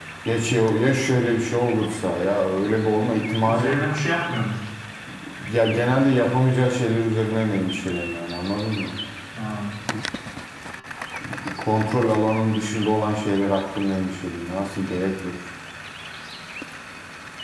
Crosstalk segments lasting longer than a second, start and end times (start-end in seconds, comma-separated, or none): none